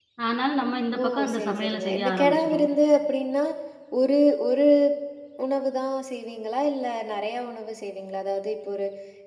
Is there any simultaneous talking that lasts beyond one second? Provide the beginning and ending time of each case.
1.0-2.7

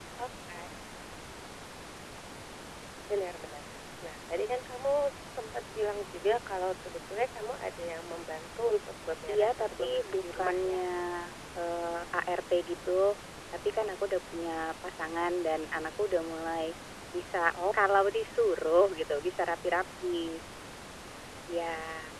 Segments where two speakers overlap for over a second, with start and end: 9.3-10.8

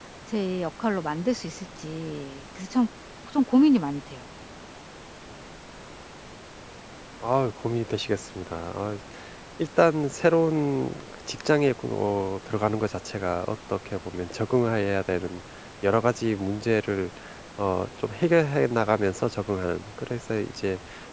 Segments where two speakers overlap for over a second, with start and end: none

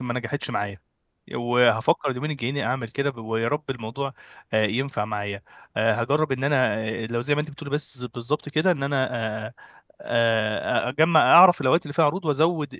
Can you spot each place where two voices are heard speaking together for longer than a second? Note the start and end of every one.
none

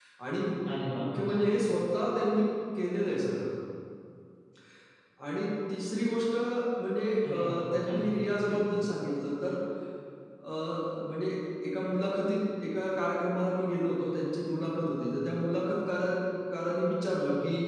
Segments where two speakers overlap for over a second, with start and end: 7.3-8.6

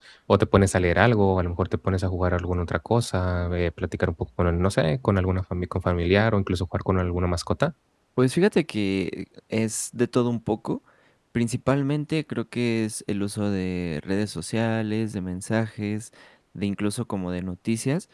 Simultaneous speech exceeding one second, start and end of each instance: none

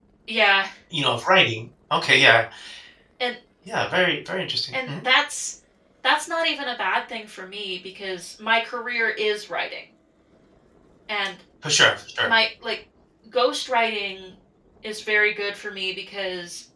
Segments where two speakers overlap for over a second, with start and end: none

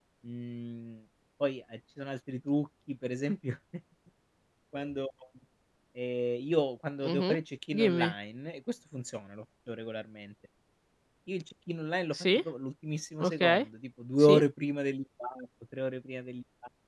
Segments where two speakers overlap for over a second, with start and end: none

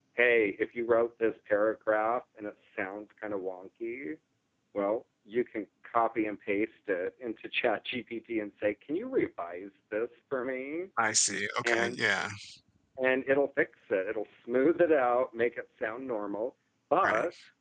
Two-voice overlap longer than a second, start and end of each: none

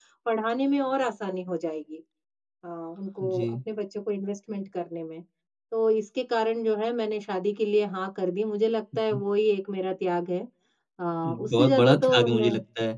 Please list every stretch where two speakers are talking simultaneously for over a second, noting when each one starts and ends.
11.2-12.5

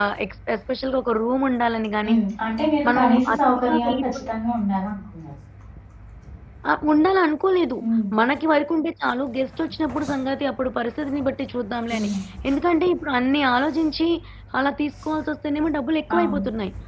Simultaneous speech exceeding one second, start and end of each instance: 2.9-4.3

